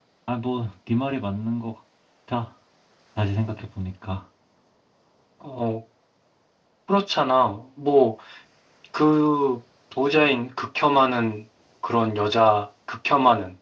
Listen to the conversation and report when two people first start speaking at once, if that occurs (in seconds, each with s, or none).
none